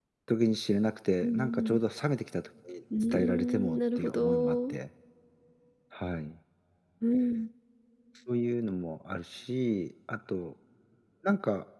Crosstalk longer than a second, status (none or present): present